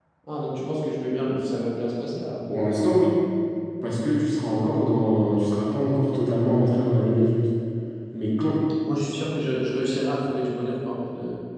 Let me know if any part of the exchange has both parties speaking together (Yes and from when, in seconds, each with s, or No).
No